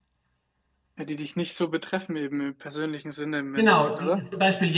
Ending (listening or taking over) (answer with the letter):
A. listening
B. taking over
B